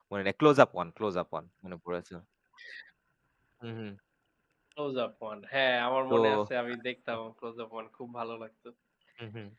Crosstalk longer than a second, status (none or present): none